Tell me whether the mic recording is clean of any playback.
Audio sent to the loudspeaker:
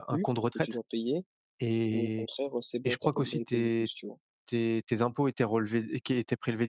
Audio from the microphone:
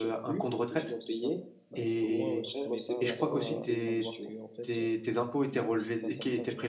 No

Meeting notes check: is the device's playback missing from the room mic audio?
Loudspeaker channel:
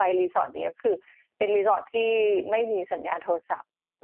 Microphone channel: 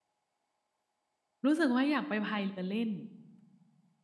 Yes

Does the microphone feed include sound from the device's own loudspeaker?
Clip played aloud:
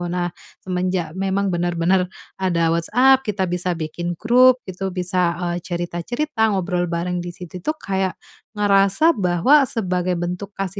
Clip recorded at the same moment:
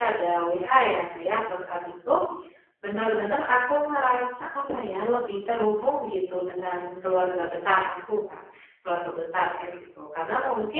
No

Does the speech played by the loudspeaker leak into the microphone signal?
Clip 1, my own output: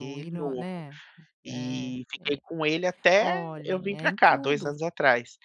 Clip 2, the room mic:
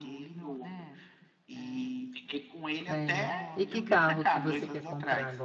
Yes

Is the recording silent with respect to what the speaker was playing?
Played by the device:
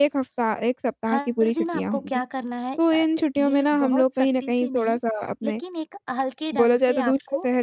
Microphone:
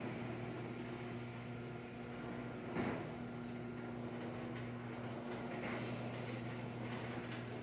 Yes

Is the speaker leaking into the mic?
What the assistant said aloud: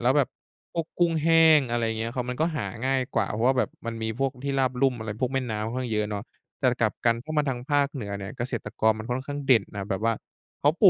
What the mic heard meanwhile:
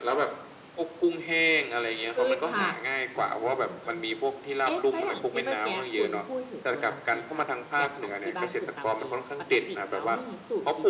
Yes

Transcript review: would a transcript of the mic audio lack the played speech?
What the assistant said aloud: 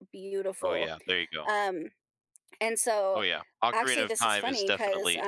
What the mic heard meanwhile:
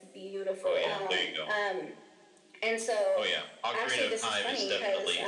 No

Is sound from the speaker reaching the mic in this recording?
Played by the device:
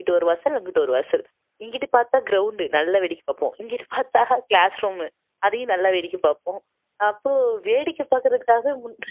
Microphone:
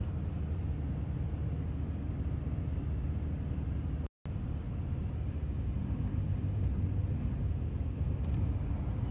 No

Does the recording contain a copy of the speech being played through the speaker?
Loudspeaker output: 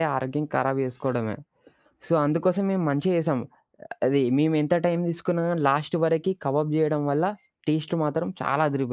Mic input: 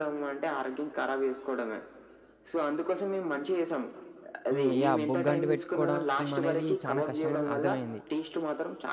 Yes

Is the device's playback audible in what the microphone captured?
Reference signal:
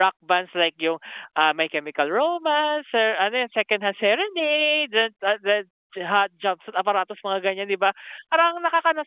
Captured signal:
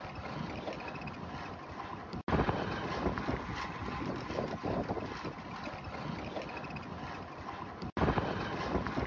No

